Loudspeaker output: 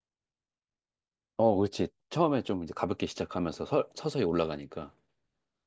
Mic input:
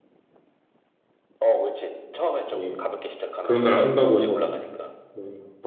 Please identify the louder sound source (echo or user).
user